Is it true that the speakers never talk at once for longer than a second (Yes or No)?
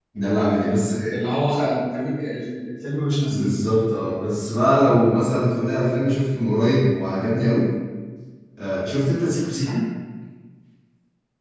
Yes